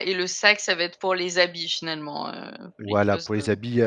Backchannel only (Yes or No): No